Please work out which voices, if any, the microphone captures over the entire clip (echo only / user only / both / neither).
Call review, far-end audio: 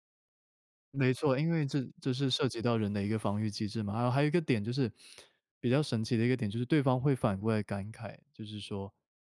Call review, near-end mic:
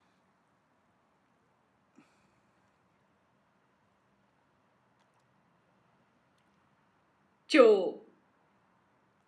user only